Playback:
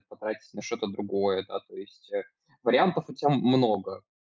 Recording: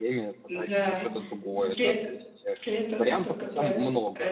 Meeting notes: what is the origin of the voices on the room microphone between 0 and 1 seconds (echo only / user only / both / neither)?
both